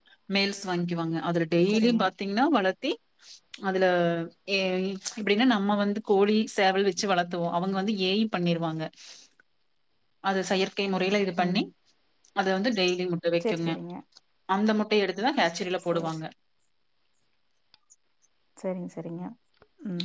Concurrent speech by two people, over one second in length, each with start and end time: none

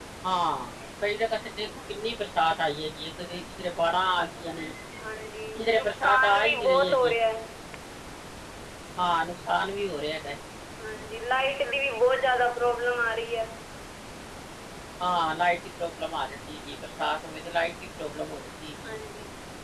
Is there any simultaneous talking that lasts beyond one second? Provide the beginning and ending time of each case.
5.6-7.1

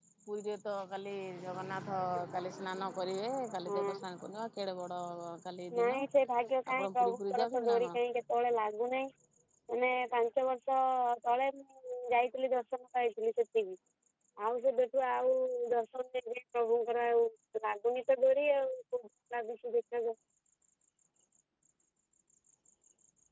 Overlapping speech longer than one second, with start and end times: 6.7-8.0

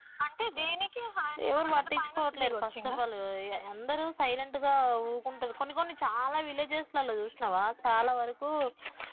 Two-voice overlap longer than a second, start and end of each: 1.5-3.0

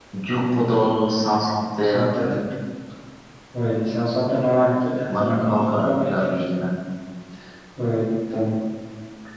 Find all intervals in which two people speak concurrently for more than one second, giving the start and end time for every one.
5.1-6.5

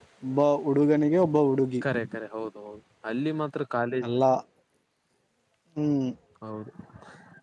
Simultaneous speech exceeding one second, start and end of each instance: none

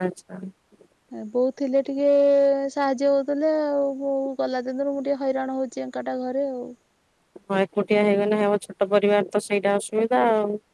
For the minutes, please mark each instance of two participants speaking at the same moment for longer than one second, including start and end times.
none

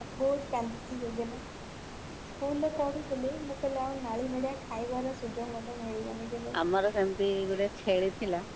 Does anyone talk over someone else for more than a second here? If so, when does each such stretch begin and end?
none

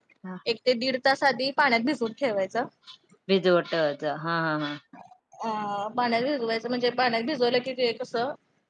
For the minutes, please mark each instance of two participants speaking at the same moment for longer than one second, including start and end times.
none

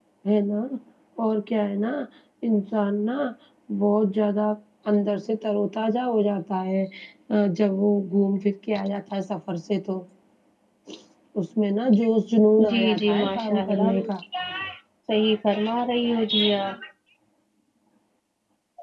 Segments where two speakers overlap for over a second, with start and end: 12.7-14.1

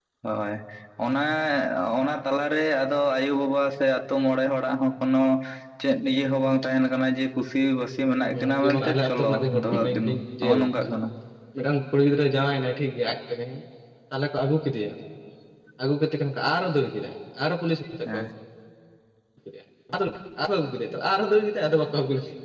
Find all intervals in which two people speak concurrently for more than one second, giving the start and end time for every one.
8.3-10.1

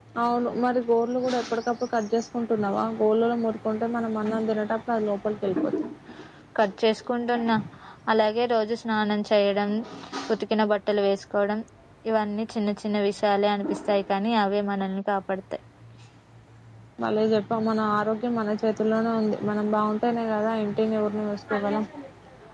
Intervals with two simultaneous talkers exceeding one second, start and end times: none

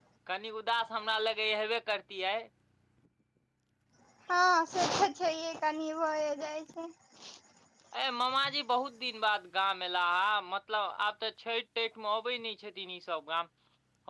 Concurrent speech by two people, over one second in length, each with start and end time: none

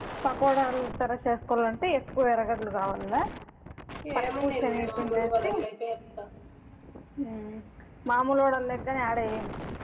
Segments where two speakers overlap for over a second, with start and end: 4.2-5.5

